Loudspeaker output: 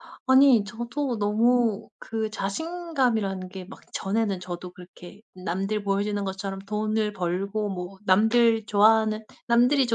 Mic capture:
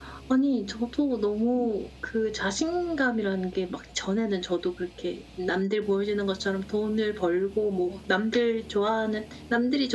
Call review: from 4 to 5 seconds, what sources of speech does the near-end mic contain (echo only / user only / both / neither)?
echo only